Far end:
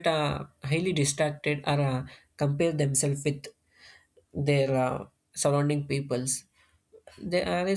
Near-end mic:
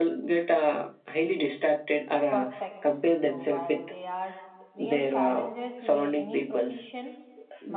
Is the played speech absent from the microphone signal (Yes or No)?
No